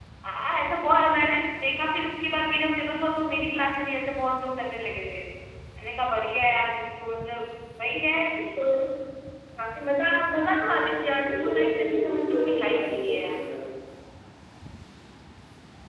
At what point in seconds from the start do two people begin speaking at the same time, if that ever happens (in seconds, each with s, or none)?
10.7 s